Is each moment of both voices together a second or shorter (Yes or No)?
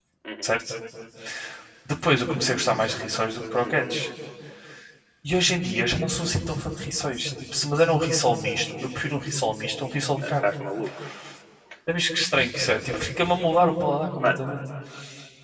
Yes